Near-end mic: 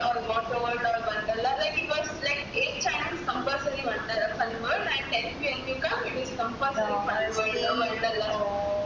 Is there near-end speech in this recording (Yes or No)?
Yes